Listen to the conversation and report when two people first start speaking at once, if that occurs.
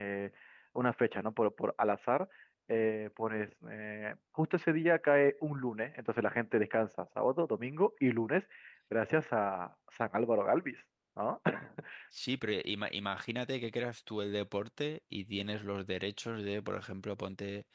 none

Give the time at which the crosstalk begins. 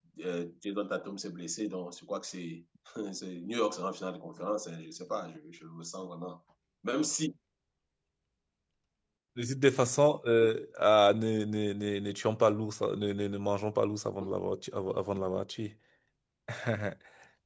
none

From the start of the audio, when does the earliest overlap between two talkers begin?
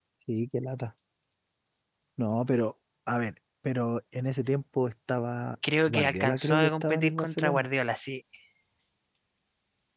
5.9 s

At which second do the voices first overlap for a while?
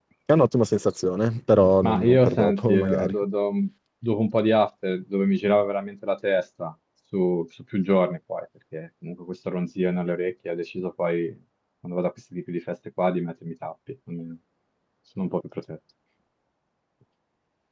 1.8 s

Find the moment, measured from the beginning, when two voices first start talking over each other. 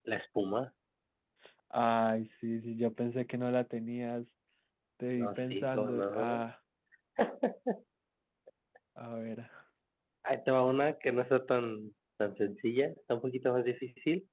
5.2 s

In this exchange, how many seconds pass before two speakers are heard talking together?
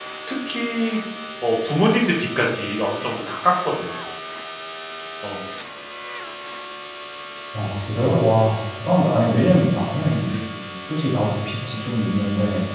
none

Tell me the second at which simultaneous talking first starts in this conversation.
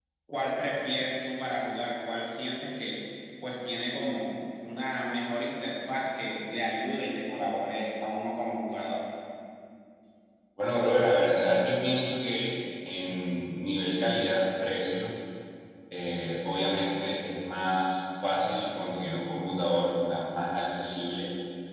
none

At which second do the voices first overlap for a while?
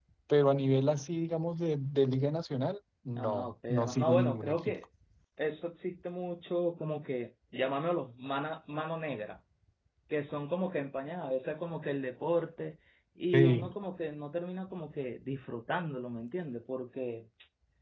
3.2 s

